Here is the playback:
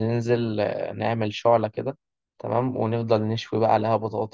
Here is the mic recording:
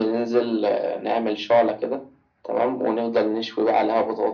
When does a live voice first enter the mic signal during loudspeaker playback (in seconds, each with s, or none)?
none